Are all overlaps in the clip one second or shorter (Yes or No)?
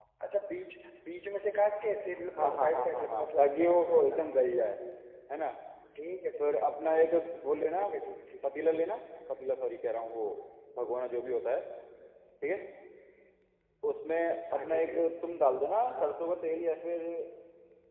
No